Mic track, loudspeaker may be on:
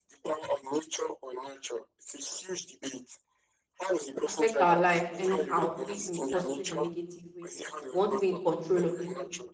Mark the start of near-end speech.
4.3 s

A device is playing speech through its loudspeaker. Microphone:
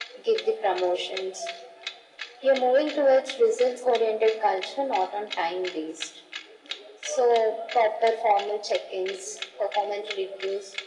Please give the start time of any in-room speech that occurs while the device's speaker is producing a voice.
none

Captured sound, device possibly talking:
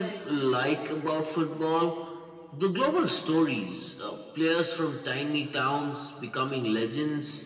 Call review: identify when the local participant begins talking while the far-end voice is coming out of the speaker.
none

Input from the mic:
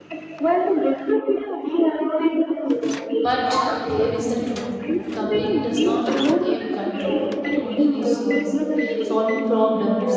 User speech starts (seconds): 3.2 s

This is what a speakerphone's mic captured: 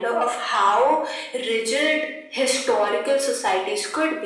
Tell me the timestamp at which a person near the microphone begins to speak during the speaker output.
none

